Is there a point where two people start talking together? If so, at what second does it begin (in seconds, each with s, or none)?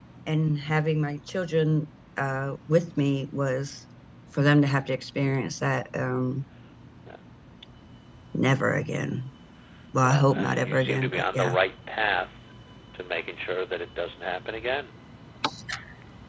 10.0 s